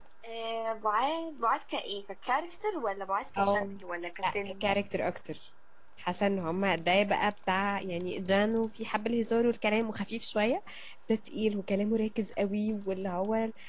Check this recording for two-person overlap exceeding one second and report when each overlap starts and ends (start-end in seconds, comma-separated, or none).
none